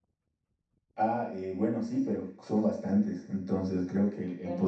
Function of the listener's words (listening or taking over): listening